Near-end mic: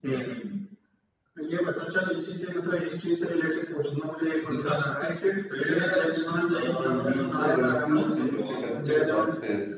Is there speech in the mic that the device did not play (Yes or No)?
Yes